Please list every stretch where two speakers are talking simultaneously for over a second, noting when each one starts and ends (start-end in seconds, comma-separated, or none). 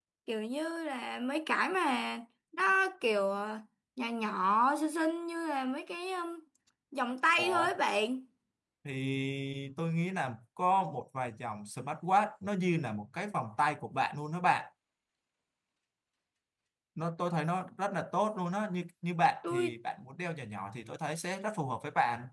none